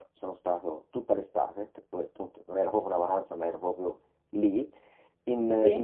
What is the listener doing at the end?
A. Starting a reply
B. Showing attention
B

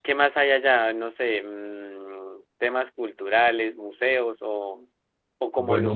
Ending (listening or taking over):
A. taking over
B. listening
B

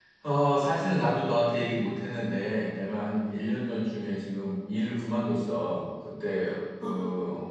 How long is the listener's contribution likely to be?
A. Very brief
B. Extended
A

